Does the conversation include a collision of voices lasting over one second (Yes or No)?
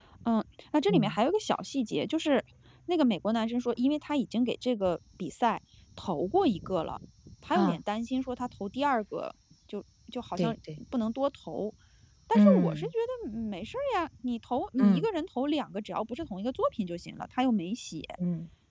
No